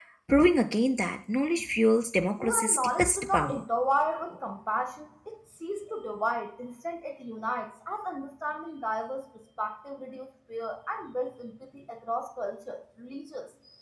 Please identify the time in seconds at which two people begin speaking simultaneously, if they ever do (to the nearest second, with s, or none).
2 s